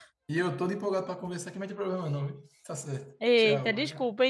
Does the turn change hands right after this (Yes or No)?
Yes